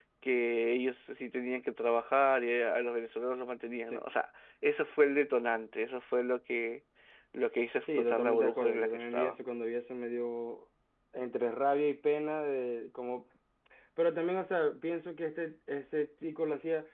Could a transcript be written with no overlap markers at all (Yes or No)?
No